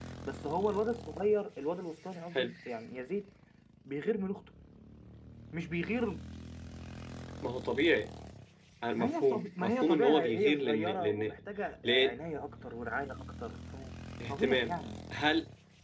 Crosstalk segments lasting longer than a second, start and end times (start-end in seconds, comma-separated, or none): 9.0-11.4